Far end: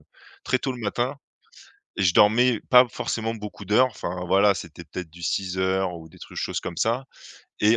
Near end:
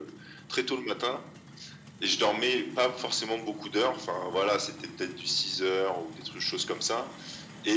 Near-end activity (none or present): none